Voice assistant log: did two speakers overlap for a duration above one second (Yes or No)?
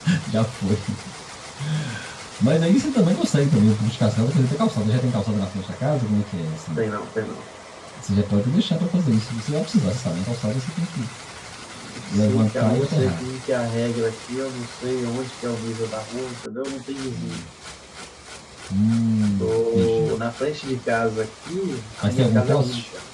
Yes